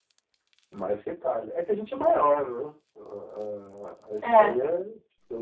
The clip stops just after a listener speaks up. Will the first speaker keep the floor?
Yes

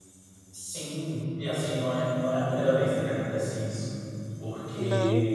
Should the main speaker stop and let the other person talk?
No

